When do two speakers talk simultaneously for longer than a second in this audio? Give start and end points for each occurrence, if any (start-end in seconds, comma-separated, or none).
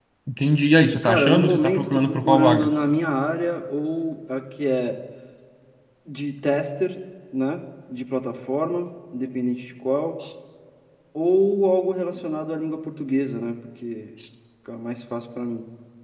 1.0-2.7